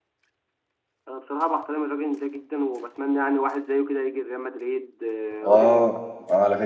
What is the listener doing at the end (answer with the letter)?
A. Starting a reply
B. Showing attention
A